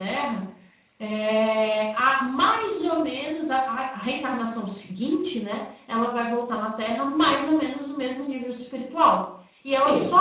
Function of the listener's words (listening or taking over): listening